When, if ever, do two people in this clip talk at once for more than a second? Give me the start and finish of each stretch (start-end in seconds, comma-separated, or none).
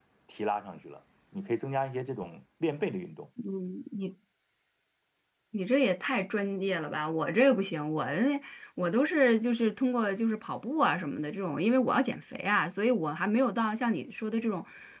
none